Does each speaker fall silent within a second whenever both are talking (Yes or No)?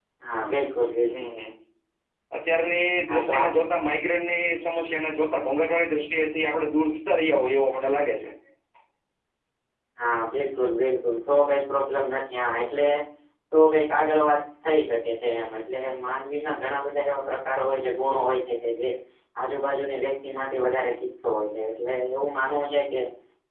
Yes